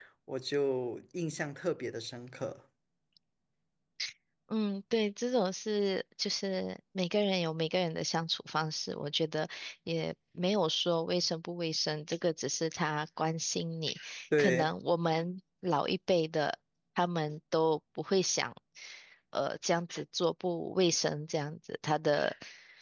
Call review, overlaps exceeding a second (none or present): none